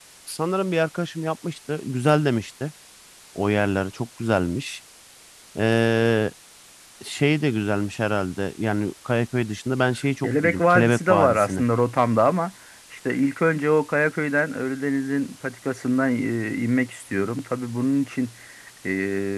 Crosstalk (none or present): present